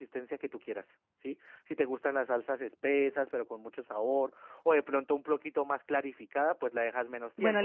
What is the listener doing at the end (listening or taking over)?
taking over